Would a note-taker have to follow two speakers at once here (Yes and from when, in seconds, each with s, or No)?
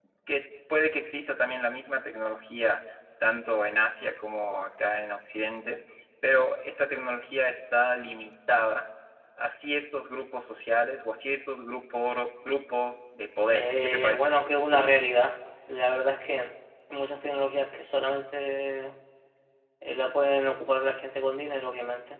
Yes, from 13.5 s